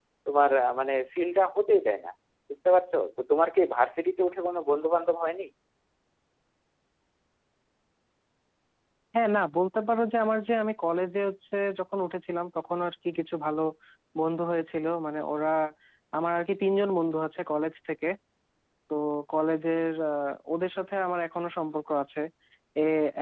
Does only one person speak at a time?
Yes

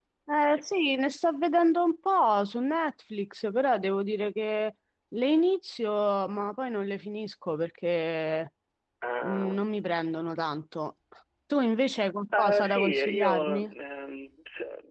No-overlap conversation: No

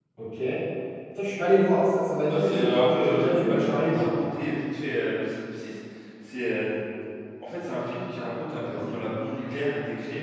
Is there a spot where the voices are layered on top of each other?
Yes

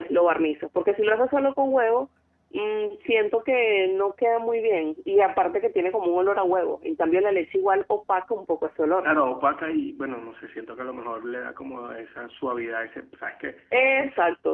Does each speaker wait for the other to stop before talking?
Yes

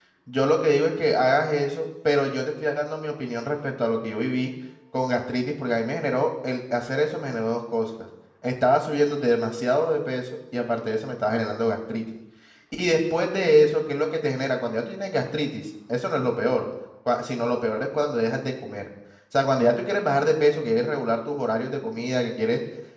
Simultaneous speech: No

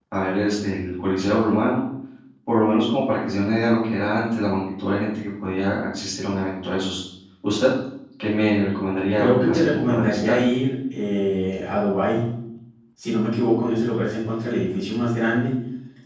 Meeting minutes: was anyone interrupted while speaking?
Yes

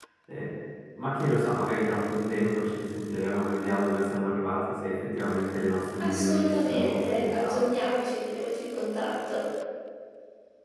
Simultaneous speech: Yes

